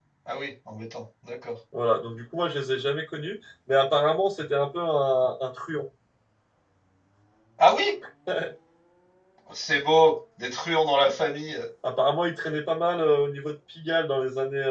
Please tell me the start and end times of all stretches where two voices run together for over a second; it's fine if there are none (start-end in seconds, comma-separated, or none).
none